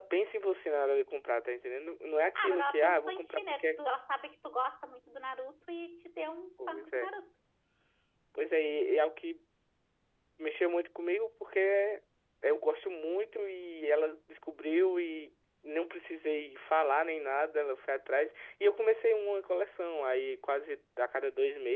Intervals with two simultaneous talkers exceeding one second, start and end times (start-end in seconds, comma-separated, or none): 2.4-3.8